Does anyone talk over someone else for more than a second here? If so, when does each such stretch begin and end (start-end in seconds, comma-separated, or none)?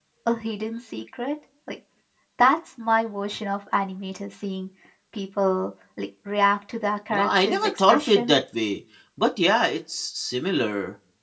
7.1-8.4